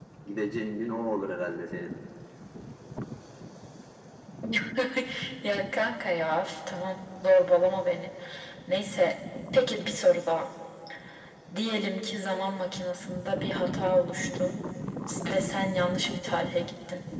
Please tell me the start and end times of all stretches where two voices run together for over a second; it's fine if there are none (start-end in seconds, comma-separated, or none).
none